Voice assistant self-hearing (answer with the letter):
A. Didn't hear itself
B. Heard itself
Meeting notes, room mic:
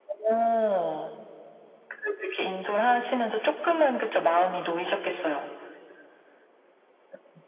B